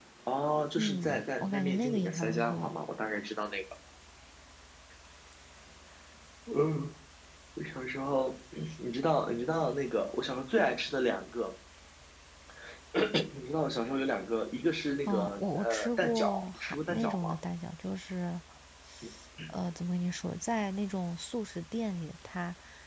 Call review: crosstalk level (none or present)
present